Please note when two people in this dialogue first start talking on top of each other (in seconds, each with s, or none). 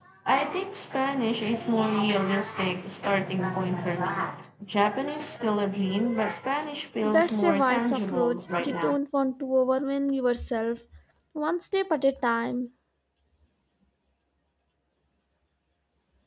7.0 s